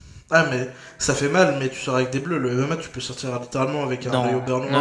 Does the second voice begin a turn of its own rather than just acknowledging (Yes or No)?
Yes